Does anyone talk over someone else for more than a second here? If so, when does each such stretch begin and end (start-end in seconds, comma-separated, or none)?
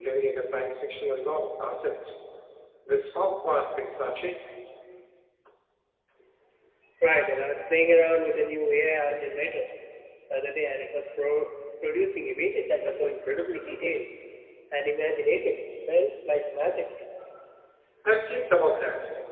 none